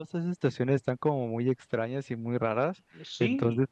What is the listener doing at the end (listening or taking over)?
listening